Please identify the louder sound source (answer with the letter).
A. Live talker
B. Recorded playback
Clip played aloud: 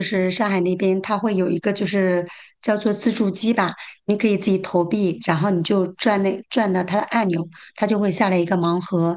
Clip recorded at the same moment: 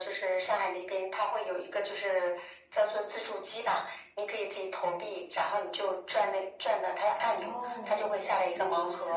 B